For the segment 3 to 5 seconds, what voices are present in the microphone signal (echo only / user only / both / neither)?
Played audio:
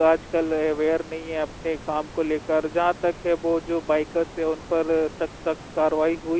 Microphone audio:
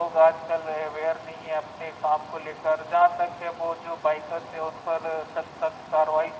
echo only